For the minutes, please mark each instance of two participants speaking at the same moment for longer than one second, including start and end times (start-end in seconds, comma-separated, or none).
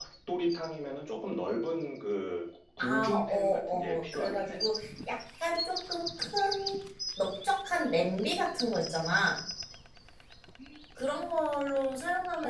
2.8-4.6